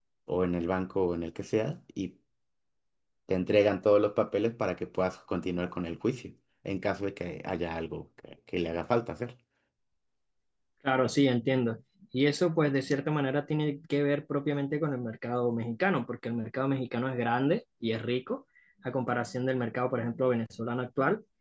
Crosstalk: none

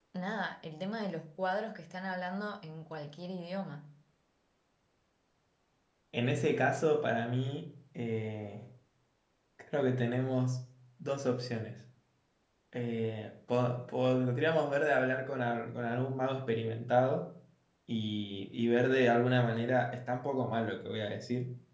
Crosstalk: none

